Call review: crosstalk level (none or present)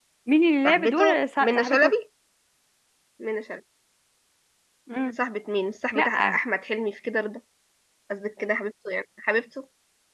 present